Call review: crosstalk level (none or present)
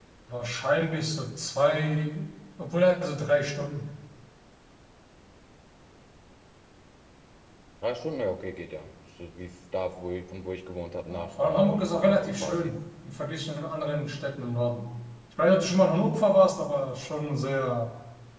present